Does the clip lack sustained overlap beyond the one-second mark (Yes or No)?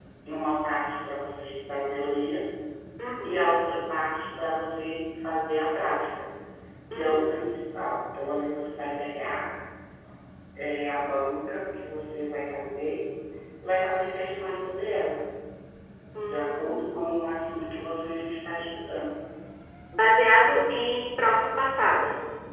No